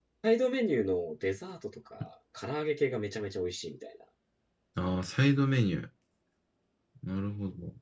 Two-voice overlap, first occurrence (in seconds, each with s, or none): none